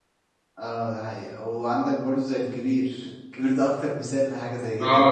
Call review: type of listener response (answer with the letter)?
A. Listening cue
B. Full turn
B